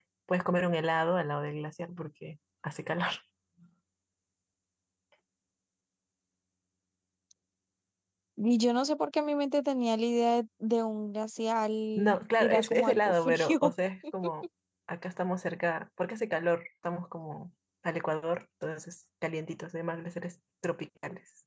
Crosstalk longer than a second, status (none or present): present